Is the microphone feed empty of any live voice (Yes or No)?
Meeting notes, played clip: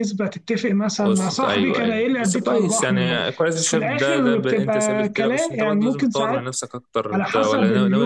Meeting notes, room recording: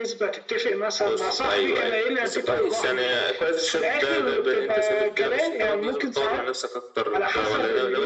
Yes